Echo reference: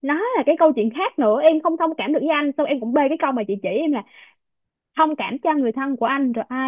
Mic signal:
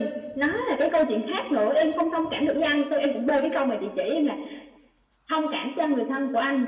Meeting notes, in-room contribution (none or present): none